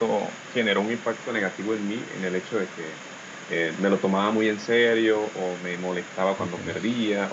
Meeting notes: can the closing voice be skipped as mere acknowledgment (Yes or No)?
Yes